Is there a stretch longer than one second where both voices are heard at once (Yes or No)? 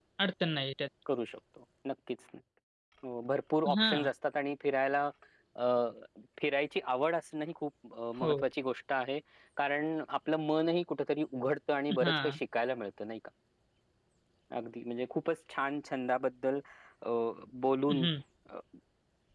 No